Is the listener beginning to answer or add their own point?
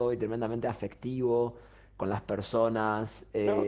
Yes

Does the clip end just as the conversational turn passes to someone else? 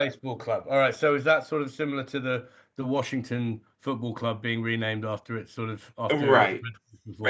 Yes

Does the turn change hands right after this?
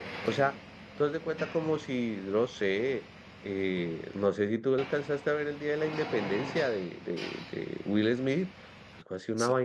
No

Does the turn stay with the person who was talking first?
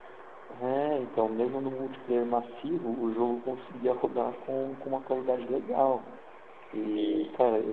Yes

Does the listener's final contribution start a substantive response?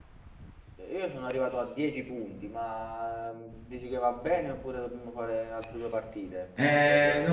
Yes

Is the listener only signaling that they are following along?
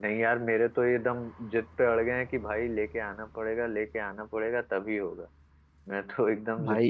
No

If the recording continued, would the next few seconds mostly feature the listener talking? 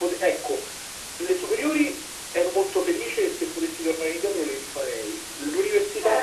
Yes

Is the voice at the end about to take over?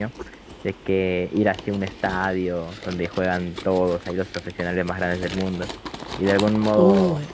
No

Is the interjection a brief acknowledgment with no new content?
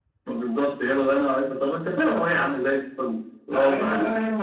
No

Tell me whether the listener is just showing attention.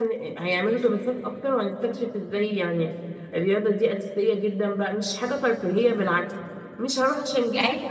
Yes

